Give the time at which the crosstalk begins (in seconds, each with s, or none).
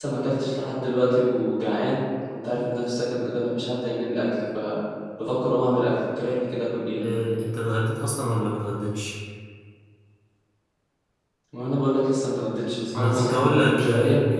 12.9 s